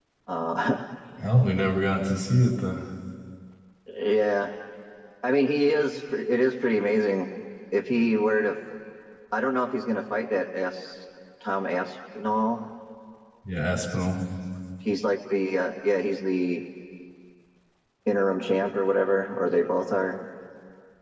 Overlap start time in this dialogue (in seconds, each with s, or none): none